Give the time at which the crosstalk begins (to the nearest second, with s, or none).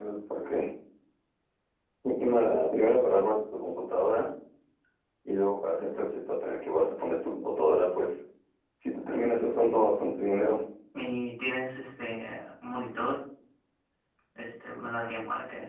none